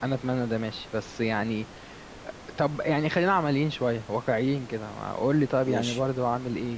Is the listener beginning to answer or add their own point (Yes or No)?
No